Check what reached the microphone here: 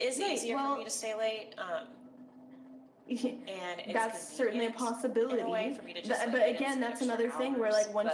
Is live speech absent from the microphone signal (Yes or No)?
Yes